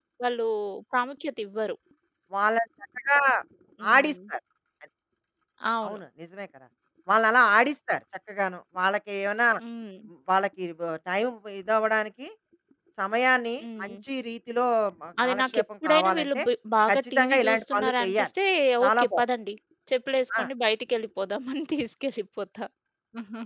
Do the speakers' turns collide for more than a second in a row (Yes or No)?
Yes